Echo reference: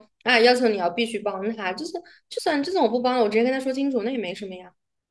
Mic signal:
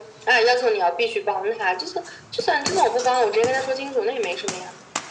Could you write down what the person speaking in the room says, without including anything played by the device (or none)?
none